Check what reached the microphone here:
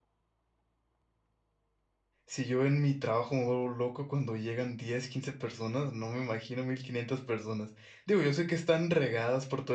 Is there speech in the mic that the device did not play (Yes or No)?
Yes